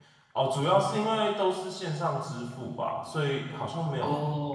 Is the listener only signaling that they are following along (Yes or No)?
Yes